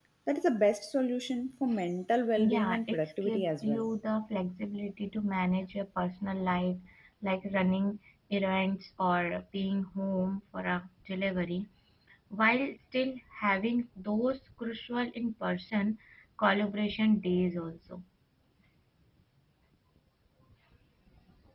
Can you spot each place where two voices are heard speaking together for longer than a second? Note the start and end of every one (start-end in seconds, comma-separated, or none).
2.5-3.8